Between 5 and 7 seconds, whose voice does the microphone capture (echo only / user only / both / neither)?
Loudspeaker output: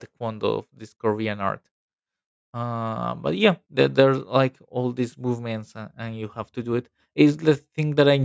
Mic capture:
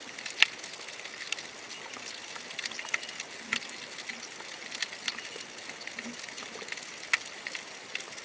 neither